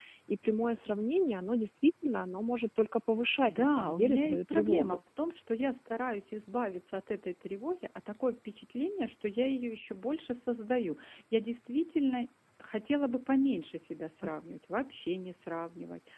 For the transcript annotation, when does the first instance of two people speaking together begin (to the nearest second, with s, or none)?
3 s